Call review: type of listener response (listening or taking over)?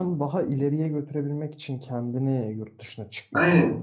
taking over